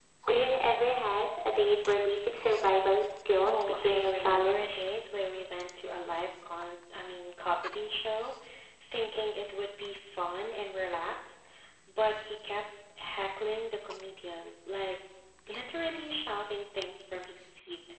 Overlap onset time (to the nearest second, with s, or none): 3 s